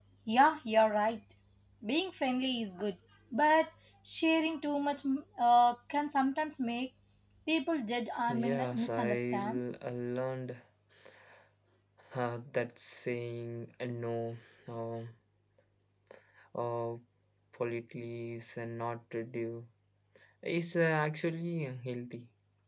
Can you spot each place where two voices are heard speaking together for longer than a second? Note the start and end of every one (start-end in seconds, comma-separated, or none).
8.3-9.6